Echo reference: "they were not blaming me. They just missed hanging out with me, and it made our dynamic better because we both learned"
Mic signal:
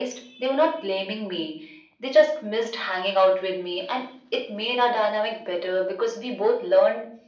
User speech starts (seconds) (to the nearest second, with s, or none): none